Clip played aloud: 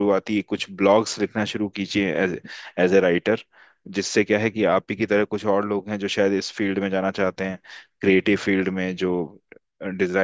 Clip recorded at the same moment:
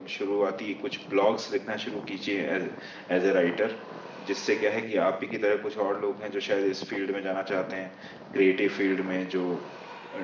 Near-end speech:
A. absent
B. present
A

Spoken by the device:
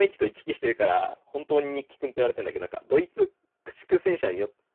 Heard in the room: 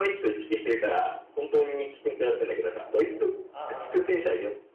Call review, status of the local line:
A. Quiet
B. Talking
B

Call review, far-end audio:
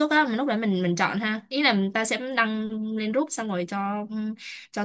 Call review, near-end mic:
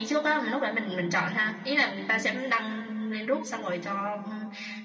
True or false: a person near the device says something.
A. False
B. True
A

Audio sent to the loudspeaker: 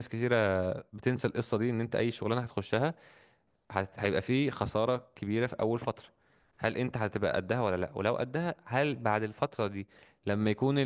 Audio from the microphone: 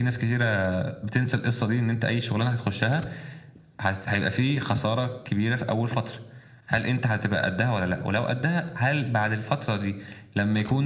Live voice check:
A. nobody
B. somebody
A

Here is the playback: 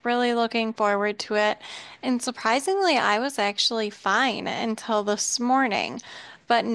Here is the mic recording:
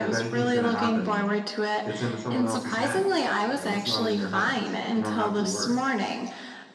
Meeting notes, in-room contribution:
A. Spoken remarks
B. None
A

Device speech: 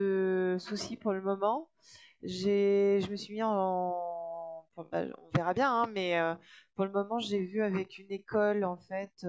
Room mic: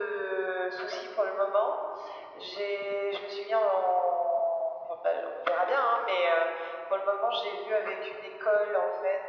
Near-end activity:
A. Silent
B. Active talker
A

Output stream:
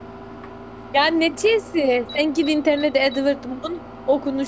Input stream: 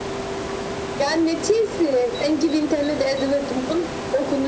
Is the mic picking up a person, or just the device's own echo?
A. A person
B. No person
B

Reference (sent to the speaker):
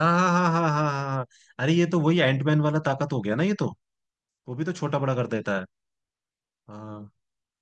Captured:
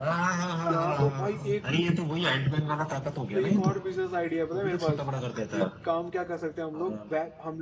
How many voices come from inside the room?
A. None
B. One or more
B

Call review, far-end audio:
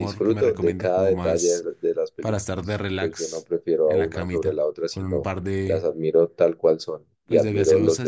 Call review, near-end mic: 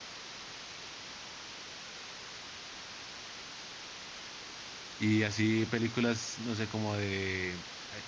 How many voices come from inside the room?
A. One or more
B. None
A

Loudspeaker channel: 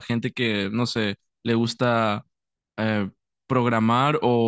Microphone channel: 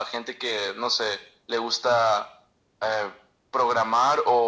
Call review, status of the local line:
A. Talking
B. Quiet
B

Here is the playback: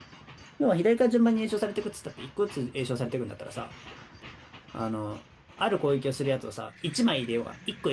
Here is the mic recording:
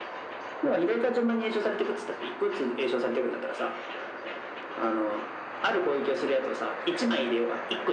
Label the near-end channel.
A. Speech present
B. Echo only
B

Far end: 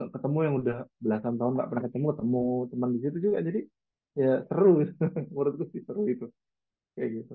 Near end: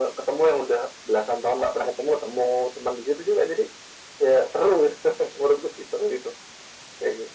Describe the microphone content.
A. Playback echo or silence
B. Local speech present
A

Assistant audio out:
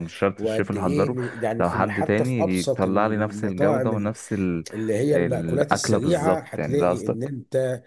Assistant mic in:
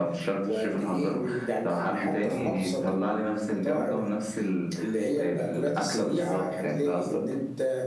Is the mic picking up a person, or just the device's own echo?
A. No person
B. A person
B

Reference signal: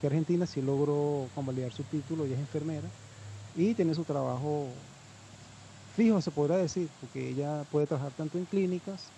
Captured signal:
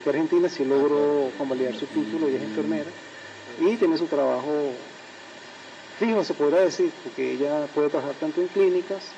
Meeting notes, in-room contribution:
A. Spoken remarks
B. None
A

